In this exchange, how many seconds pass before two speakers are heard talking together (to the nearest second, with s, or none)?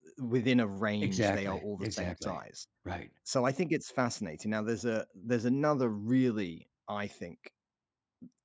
1 s